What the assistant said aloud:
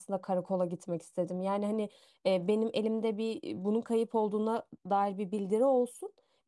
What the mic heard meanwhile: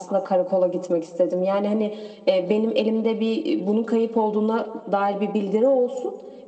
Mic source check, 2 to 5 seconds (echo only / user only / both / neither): echo only